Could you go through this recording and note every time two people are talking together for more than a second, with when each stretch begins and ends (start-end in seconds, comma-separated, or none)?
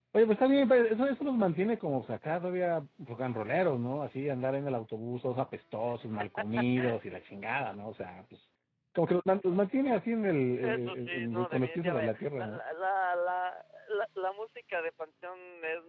10.6-12.6